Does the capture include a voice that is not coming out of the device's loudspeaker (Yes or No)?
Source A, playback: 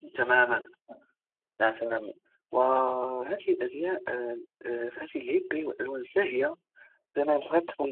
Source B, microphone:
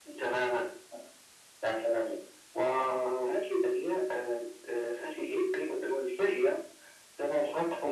No